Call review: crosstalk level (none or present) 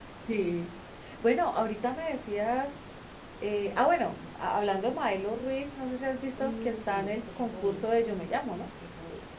present